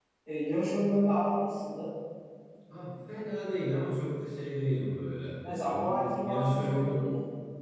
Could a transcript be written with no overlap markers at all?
No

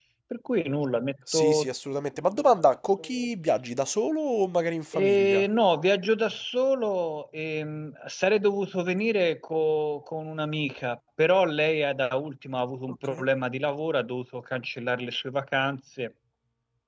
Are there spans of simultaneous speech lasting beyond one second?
No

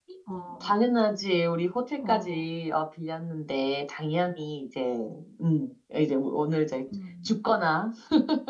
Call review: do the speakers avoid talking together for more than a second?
Yes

